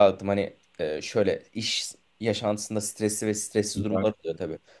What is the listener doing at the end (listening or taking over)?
listening